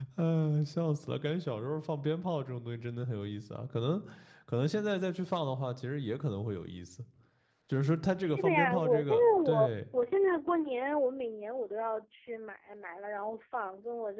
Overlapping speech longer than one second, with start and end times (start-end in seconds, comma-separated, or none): 8.2-9.7